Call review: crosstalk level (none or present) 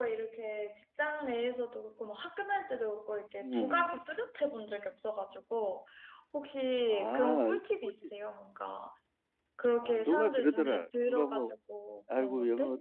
present